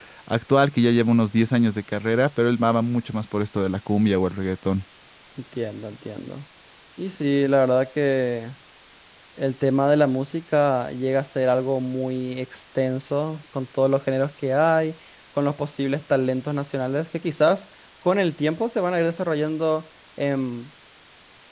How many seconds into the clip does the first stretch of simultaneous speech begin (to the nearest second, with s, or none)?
none